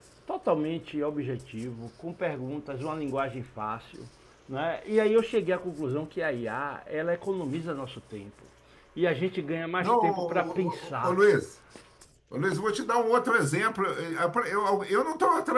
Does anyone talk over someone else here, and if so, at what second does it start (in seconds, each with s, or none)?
9.8 s